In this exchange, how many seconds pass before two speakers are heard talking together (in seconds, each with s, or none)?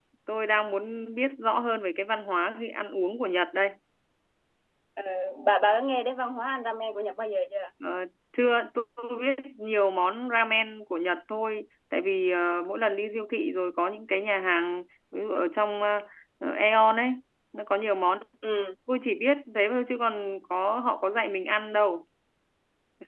none